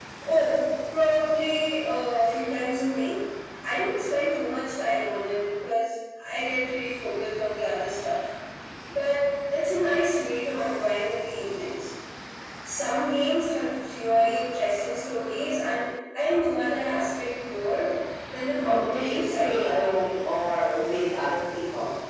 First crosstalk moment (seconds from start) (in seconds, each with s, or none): 18.6 s